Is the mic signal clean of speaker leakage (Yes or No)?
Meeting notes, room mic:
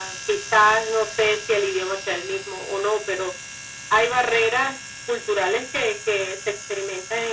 No